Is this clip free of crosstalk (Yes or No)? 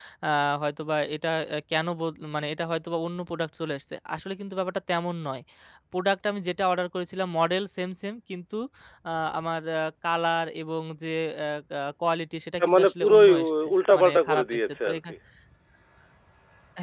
No